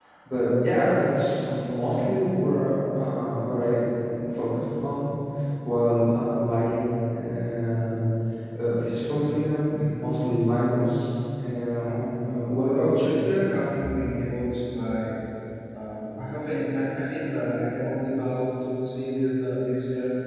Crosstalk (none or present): present